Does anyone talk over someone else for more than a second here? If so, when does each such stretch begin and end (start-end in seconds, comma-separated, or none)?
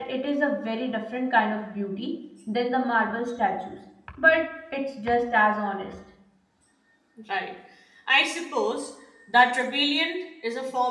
none